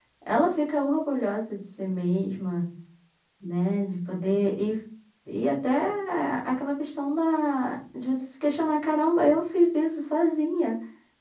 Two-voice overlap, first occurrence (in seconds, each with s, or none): none